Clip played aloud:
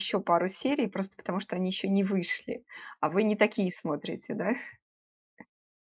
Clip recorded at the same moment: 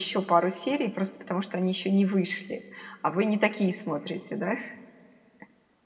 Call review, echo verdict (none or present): present